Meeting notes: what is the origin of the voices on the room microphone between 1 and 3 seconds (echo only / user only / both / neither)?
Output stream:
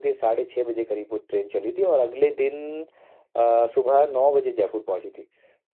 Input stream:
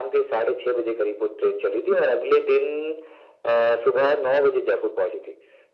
echo only